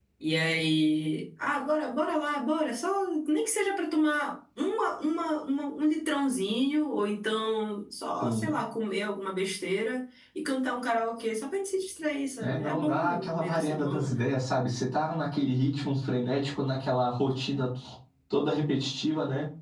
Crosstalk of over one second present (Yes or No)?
Yes